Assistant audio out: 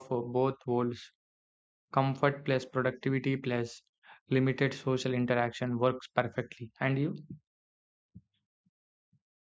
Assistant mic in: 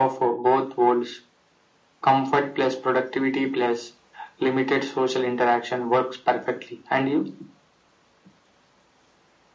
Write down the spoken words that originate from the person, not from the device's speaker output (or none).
none